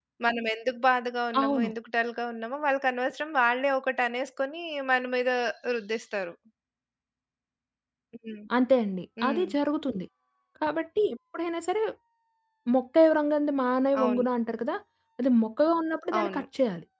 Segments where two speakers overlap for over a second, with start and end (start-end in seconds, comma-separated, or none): none